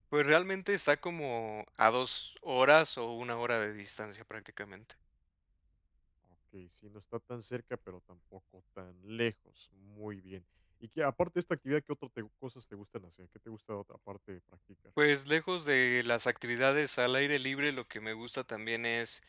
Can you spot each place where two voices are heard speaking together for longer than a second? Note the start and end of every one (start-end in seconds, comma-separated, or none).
none